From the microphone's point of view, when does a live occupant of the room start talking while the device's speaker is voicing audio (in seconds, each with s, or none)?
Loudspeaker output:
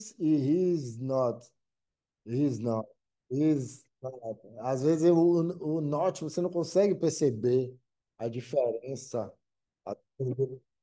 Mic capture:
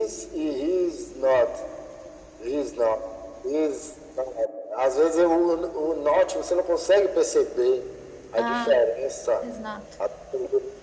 8.4 s